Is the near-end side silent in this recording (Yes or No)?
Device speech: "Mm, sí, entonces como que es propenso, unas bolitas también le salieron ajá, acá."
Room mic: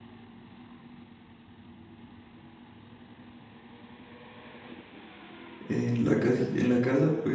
No